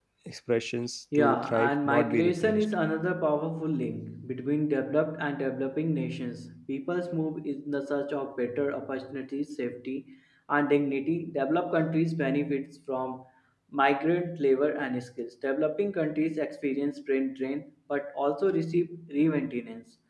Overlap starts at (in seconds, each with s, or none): 1.1 s